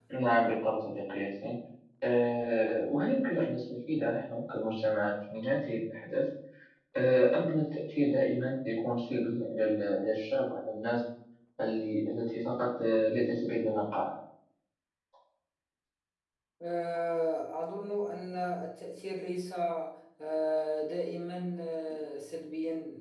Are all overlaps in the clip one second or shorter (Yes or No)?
Yes